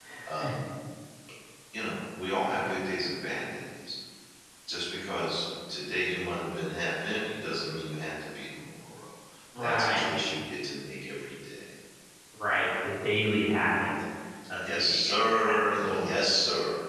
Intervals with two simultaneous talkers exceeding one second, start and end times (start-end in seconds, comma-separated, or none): 14.5-16.1